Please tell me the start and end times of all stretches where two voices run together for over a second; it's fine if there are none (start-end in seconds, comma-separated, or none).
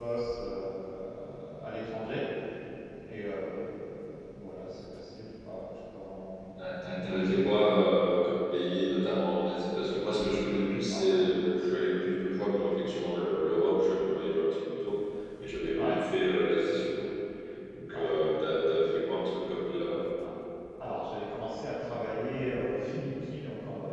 none